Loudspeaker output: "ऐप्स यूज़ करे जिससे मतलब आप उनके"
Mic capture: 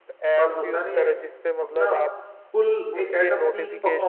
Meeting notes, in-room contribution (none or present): present